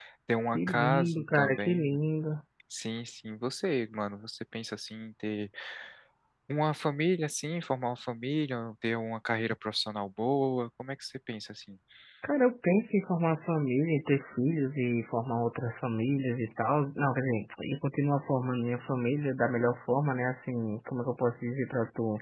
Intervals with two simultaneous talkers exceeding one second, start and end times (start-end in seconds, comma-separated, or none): 0.5-1.9